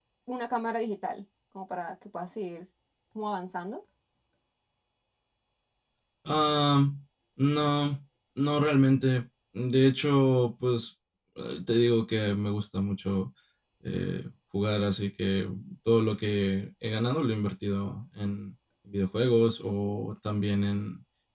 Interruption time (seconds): none

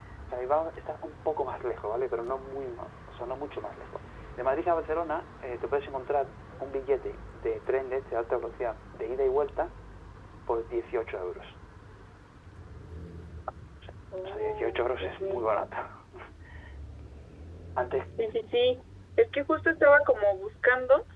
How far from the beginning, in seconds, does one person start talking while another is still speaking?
14.2 s

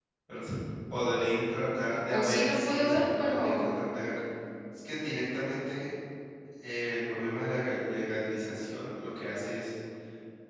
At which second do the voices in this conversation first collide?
2.1 s

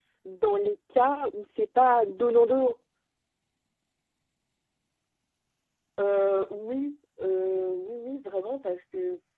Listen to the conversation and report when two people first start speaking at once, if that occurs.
none

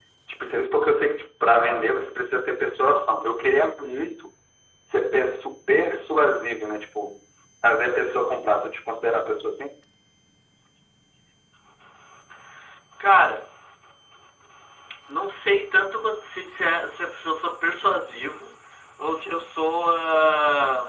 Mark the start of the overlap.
none

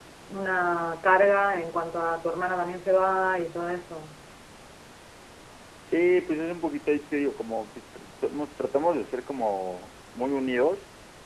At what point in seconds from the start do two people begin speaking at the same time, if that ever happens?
none

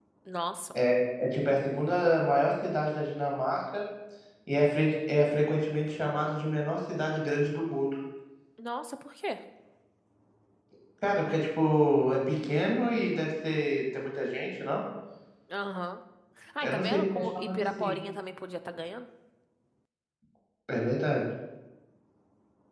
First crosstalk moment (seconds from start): 16.6 s

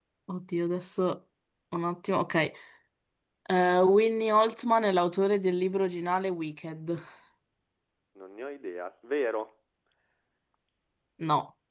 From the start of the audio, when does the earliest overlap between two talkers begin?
none

